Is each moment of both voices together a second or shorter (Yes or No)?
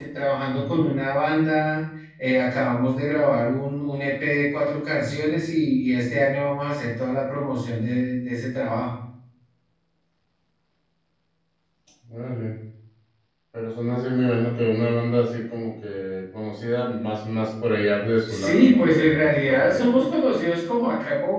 No